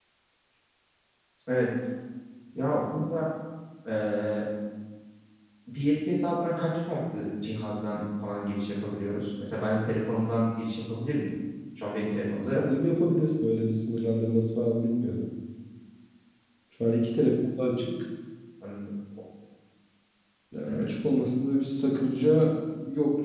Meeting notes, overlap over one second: none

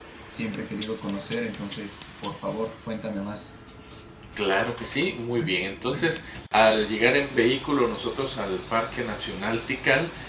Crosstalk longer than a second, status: none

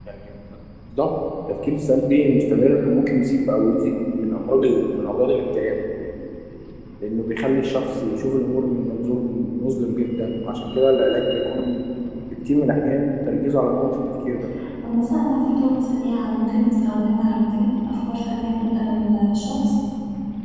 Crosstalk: none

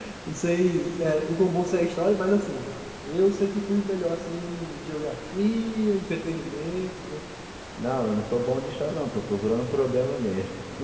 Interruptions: none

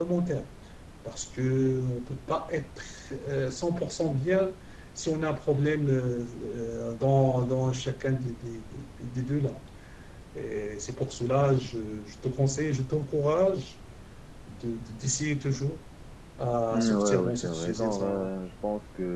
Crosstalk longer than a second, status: present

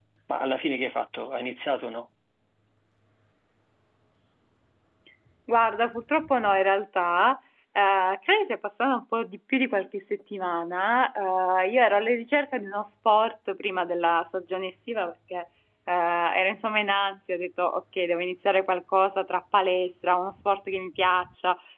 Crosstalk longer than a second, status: none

